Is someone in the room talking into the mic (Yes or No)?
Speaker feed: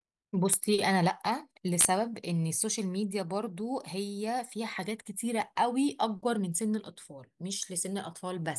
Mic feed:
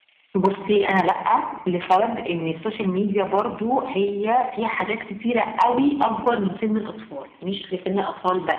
No